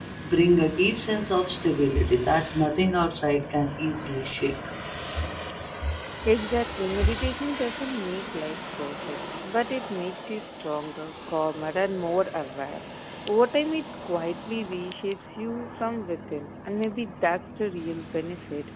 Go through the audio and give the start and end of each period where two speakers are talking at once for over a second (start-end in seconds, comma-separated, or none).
none